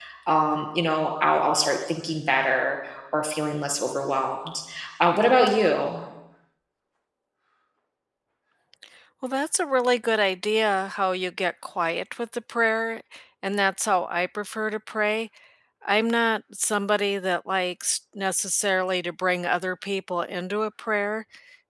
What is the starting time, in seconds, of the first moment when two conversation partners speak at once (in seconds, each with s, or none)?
none